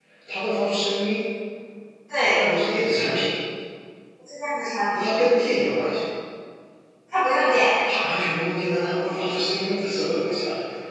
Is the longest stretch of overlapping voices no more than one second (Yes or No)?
Yes